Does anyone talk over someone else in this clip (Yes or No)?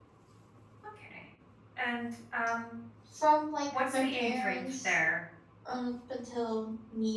Yes